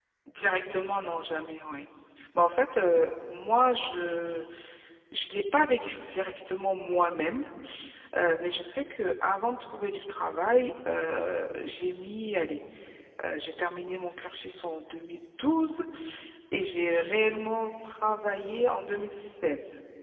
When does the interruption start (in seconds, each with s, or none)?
none